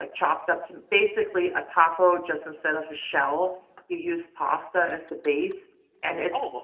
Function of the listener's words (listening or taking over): listening